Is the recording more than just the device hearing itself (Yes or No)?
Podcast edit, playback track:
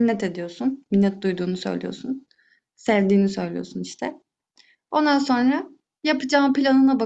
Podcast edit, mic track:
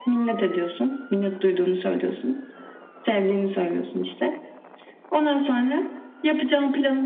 No